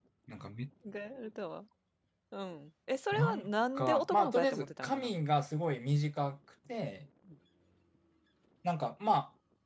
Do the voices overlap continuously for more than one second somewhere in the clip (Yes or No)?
Yes